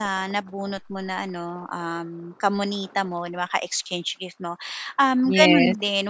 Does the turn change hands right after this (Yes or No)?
No